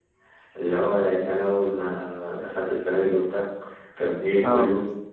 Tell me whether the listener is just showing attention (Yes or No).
Yes